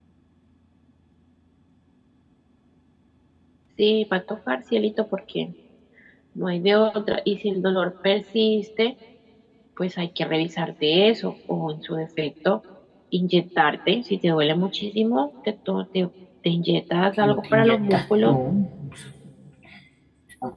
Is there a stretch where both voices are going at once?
Yes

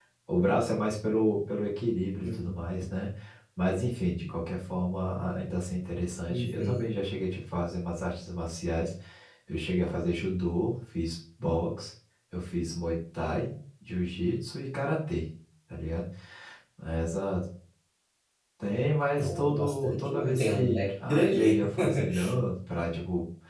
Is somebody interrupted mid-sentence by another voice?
Yes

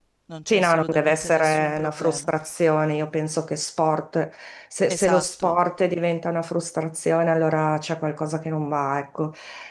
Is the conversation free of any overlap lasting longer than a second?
No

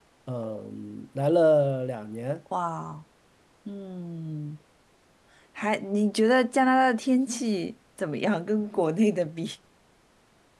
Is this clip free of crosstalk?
Yes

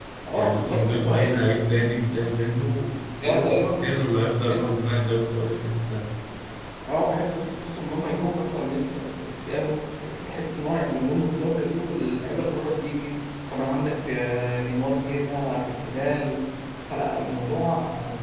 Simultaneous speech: Yes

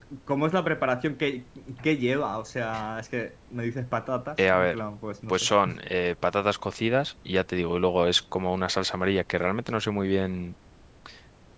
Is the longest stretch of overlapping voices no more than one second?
Yes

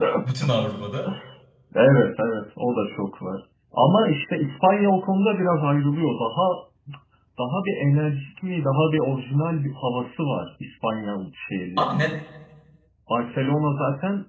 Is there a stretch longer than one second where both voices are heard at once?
No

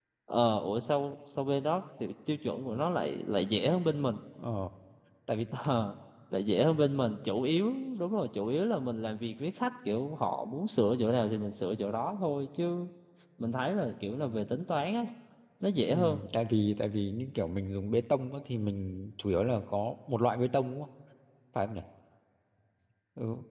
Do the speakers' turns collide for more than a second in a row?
No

